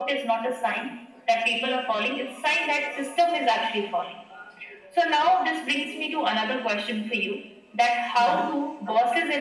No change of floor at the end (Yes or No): Yes